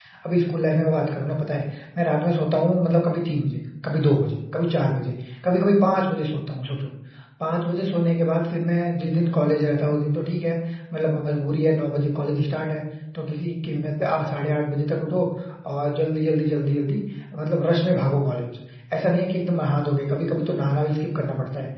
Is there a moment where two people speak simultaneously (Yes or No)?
No